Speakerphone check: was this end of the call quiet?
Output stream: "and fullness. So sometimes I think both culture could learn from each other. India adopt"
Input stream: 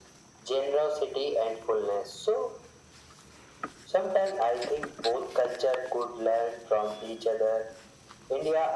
Yes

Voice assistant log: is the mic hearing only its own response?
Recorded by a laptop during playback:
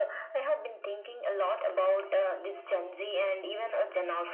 Yes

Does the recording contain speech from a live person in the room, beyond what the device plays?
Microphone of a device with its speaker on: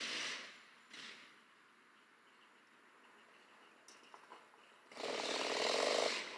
No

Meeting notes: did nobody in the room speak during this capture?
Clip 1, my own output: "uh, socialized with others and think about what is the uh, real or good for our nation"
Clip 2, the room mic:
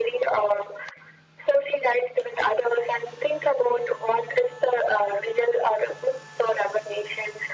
Yes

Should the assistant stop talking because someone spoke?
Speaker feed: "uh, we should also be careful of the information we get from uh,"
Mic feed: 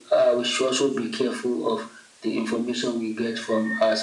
No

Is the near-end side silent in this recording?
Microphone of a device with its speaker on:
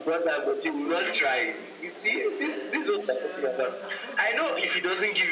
No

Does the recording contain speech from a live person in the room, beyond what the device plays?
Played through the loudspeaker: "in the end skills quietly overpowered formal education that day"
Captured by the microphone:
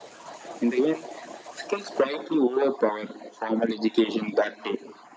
No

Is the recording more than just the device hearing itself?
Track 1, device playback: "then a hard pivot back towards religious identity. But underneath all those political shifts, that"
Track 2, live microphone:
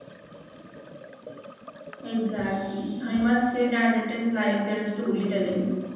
Yes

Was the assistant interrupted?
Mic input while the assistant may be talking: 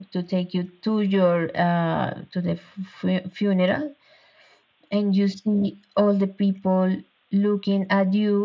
No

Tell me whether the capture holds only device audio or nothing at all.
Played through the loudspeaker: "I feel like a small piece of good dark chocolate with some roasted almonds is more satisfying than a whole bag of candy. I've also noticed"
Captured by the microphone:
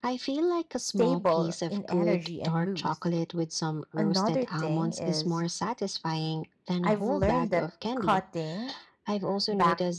No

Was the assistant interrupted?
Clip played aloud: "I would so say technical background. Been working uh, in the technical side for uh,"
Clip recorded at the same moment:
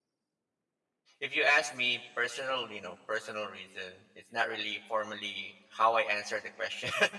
Yes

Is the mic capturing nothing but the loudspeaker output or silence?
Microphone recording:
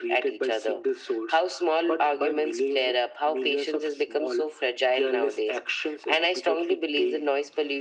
Yes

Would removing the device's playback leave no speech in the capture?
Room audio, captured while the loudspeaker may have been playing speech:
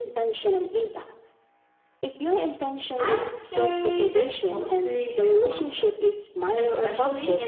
No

